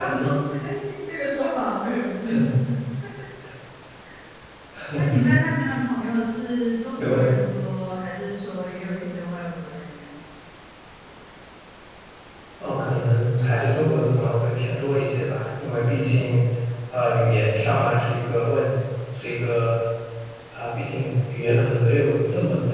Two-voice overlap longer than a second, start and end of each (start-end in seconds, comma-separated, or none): none